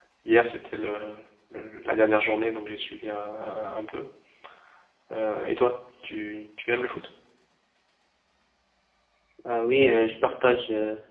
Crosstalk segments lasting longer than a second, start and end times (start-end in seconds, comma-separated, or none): none